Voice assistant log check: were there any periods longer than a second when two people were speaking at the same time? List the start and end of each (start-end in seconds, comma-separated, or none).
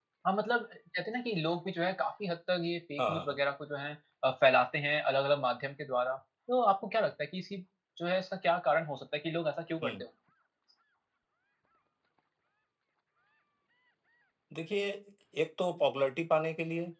none